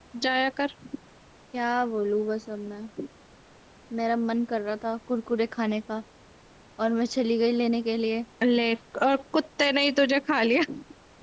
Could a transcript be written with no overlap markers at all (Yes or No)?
Yes